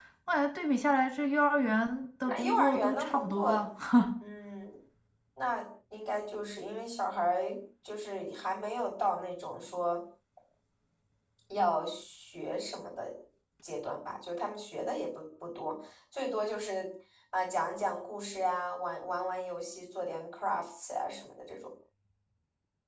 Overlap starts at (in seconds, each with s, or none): 2.2 s